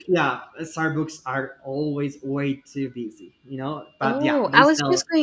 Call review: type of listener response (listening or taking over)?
taking over